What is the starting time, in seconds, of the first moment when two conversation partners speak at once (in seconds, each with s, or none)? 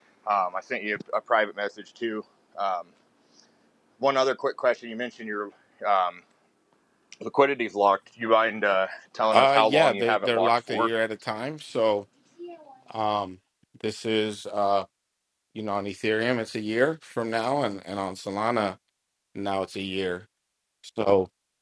9.3 s